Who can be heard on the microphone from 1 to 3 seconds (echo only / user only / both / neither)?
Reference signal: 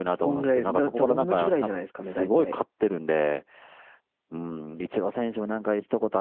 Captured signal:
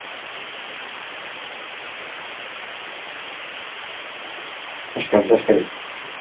neither